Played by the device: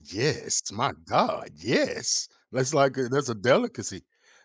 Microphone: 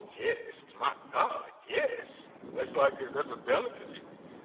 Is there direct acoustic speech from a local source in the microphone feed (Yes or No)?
No